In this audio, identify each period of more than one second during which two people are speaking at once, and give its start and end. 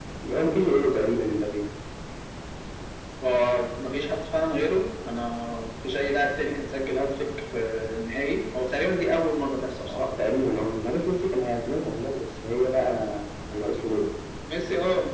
none

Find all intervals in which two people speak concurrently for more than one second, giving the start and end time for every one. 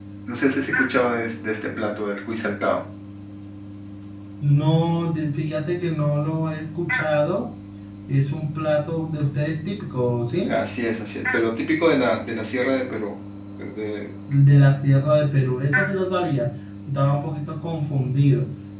none

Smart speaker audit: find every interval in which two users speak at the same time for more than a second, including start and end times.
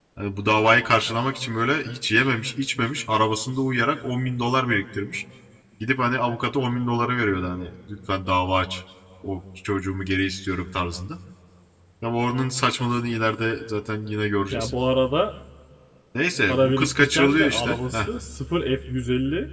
16.5-18.1

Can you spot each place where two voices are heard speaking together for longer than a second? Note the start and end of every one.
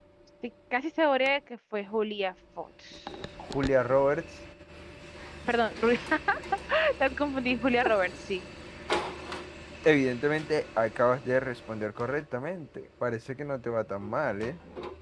none

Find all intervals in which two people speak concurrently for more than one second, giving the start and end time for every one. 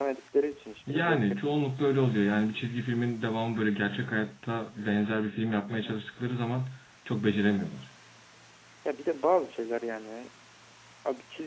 none

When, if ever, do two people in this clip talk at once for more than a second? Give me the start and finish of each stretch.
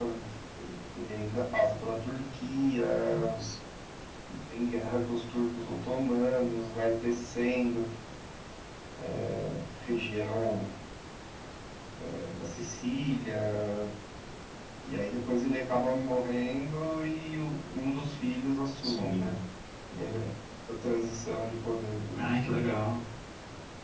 none

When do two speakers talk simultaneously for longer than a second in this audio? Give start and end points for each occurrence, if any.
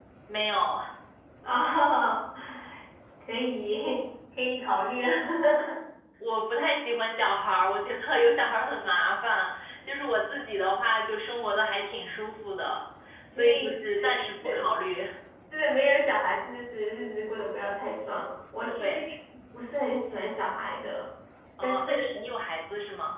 13.3-14.6

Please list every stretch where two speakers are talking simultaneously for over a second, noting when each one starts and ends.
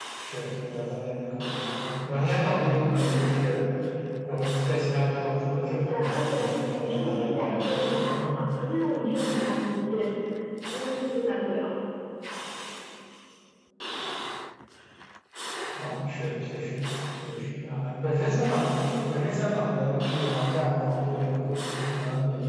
5.9-8.4

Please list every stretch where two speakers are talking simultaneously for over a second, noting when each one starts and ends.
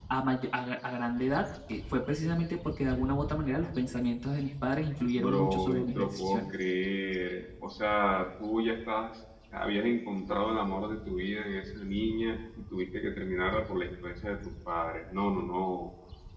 5.1-6.5

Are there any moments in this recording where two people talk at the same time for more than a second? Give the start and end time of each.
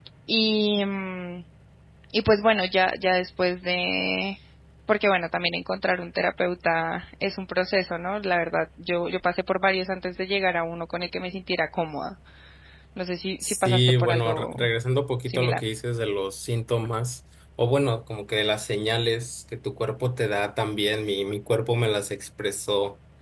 13.4-14.7

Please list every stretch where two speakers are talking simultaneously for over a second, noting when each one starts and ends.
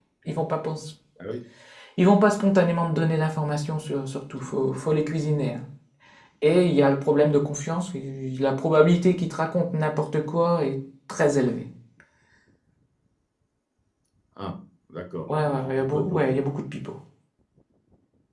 15.3-16.5

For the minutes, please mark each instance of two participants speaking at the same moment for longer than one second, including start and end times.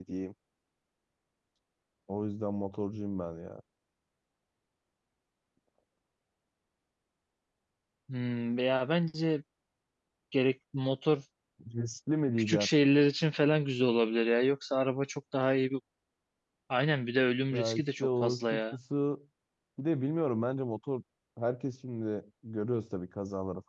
17.5-18.7

